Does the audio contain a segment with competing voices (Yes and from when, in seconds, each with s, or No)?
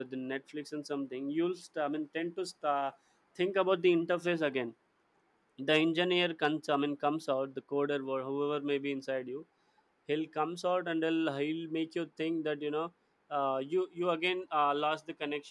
No